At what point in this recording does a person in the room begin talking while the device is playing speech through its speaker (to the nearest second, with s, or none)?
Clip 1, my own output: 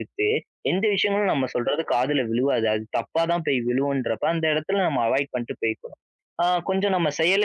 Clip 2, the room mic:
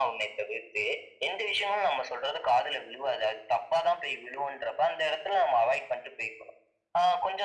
none